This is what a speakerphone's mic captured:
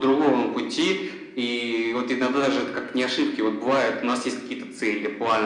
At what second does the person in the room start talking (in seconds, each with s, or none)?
none